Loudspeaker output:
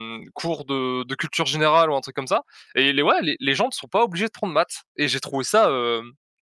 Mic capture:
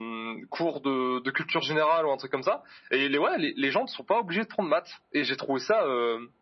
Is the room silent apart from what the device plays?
Yes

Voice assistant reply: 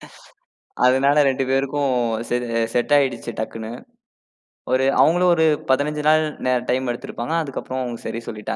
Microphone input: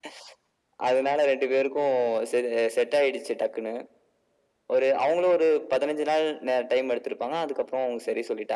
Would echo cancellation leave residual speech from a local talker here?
No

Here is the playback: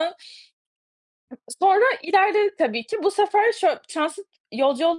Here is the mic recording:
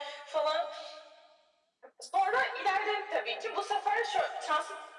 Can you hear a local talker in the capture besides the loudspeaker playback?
No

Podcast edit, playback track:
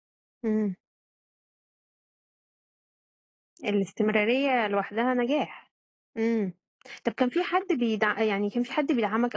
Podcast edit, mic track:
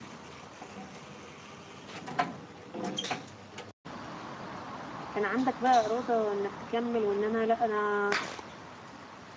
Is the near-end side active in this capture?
Yes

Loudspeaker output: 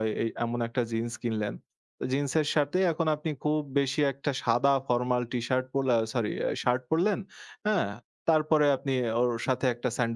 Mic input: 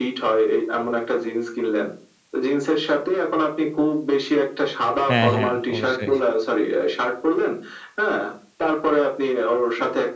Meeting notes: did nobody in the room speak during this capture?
No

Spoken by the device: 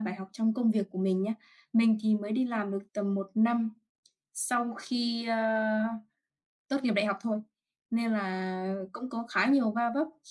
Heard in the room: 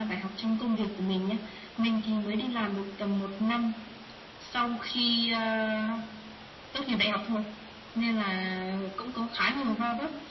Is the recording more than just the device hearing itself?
No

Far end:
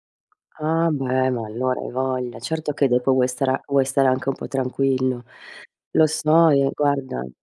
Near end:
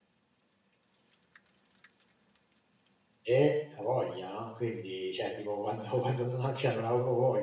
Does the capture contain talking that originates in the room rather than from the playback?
Yes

